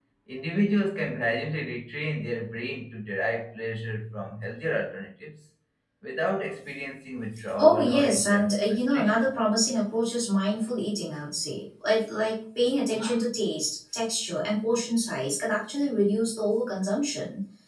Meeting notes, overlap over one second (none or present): present